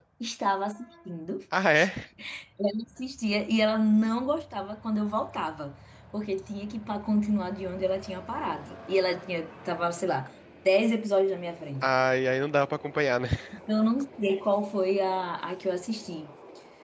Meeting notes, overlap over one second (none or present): none